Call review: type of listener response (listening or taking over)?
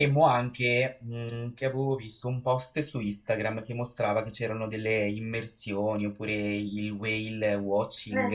taking over